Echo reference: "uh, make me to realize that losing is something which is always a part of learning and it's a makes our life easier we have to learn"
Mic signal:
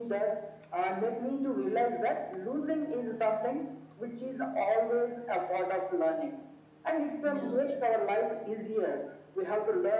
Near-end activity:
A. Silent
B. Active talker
B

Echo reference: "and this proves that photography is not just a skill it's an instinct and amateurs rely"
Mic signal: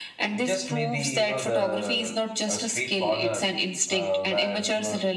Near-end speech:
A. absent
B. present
B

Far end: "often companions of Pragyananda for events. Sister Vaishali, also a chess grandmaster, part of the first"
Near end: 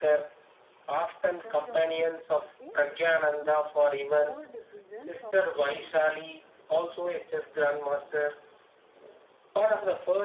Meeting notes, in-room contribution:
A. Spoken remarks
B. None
A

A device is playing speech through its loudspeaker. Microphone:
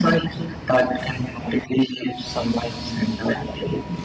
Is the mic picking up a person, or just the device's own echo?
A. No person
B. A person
A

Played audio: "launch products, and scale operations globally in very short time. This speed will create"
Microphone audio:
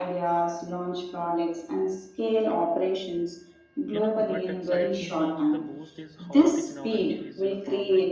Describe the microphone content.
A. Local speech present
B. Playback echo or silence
A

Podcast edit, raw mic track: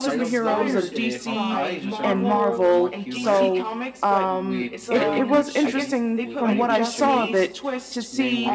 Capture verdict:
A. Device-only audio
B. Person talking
B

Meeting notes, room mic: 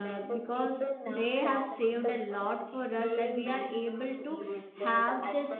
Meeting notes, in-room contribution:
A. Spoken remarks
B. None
A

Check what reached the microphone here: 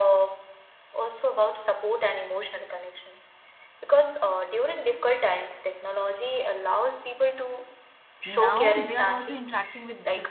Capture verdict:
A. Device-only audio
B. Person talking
B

